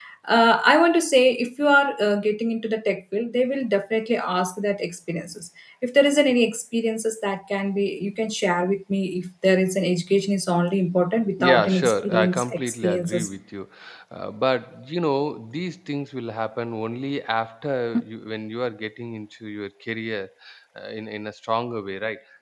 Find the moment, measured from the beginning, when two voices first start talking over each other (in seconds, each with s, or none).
11.4 s